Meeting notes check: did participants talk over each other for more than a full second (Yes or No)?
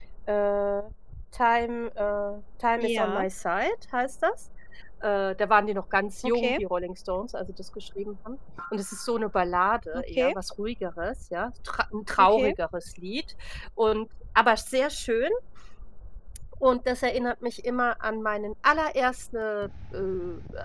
No